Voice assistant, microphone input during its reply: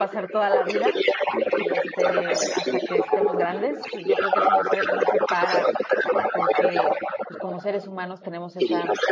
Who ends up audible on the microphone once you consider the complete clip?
both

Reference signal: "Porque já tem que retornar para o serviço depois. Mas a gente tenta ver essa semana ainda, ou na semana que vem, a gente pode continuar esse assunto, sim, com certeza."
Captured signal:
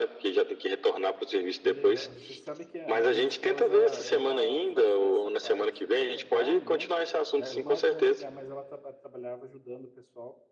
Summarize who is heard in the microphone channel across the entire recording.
both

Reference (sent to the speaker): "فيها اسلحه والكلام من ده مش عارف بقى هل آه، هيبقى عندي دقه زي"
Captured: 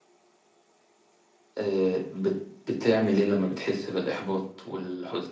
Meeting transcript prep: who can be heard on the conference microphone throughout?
user only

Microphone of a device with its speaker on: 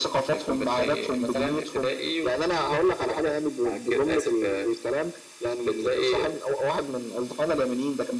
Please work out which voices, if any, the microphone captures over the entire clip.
echo only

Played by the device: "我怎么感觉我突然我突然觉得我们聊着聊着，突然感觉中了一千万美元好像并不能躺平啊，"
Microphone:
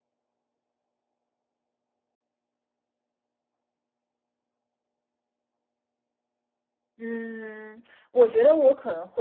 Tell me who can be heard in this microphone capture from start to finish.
user only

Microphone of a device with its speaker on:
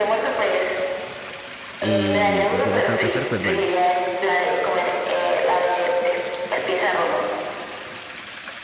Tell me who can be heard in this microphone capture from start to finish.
both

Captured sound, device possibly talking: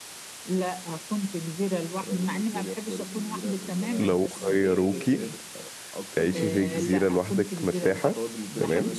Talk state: both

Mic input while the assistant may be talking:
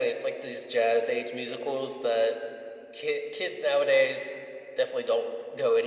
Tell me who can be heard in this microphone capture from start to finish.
echo only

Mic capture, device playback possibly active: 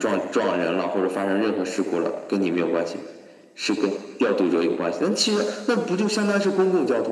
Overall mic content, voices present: echo only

